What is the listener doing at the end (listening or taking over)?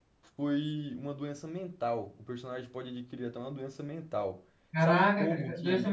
taking over